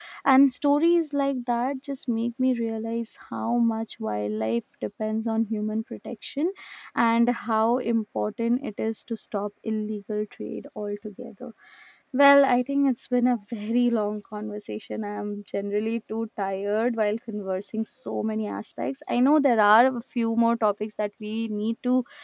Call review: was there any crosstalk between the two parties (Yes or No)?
No